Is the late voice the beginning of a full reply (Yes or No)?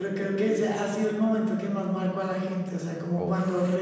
No